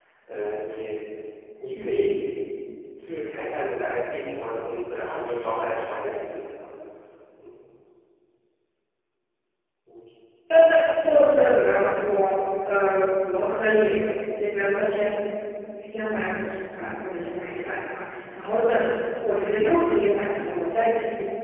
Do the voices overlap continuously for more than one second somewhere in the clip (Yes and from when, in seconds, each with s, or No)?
No